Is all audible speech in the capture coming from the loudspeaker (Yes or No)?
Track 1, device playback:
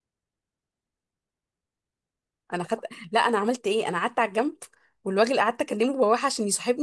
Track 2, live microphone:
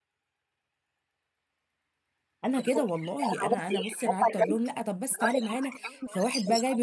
No